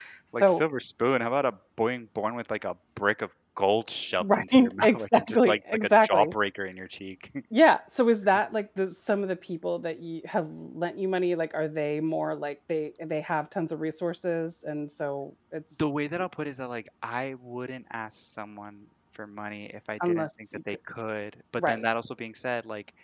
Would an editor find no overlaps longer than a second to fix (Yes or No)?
No